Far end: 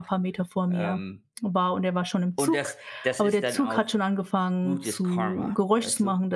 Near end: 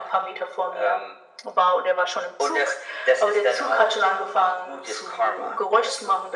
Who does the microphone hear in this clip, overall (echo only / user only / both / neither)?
echo only